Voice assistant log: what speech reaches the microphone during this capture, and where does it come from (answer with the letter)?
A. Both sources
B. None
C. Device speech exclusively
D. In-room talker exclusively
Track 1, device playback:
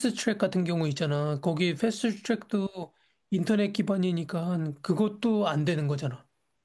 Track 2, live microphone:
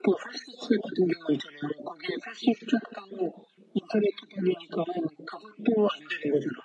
C